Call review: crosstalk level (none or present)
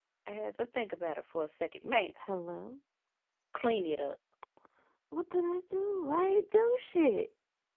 none